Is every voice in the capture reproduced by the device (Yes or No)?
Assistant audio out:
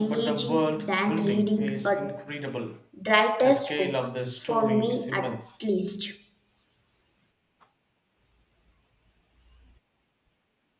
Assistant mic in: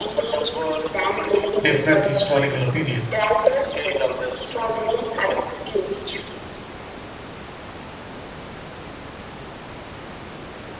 No